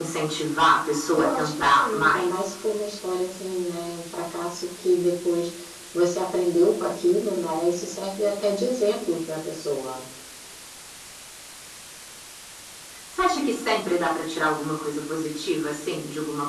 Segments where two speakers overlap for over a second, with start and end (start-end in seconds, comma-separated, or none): 1.1-2.5